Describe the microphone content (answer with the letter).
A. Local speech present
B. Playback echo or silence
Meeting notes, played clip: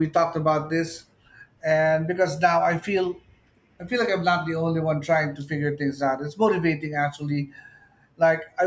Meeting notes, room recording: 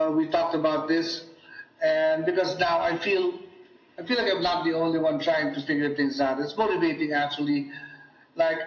B